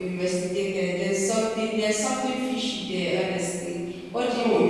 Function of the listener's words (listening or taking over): taking over